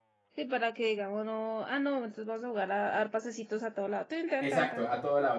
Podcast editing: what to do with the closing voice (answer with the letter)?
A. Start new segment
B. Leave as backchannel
A